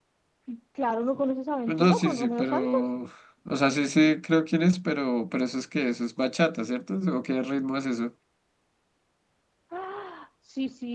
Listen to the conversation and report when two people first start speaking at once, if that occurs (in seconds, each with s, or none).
1.7 s